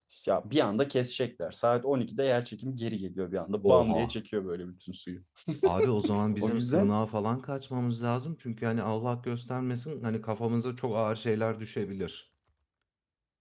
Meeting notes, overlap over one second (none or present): none